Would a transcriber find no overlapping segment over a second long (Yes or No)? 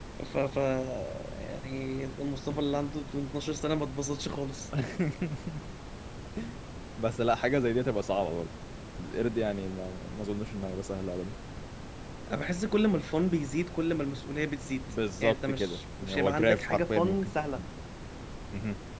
No